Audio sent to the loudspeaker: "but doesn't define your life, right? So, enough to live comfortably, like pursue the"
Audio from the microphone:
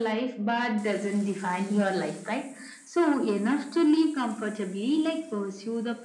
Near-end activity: none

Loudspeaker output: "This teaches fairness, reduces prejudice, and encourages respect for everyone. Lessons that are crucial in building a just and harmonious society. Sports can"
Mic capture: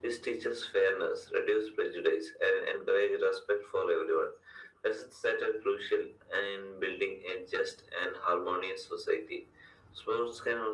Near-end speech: none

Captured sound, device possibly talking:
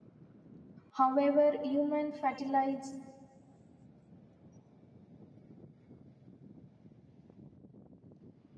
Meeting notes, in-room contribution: present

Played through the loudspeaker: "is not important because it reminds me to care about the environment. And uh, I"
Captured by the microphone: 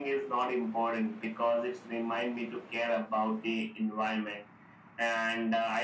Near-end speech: none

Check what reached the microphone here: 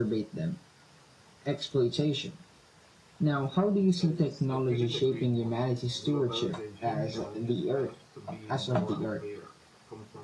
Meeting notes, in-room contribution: present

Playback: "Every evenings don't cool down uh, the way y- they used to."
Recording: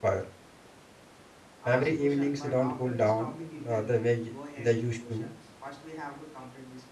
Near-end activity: present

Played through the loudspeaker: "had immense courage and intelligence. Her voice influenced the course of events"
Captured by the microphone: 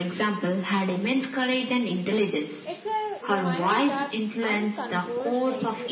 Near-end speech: present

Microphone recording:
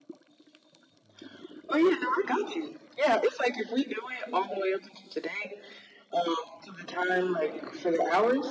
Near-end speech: none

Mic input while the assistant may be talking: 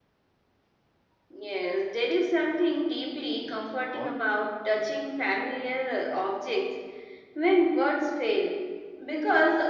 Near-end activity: present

